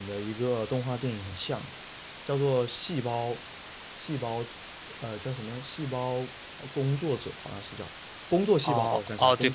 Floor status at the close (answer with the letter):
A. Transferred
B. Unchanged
A